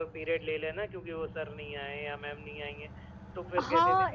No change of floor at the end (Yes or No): No